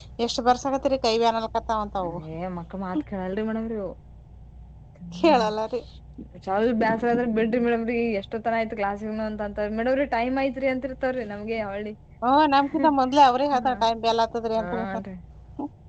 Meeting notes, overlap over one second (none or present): none